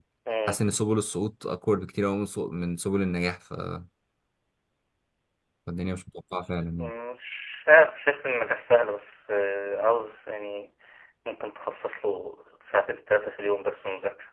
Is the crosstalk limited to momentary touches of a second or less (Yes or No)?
Yes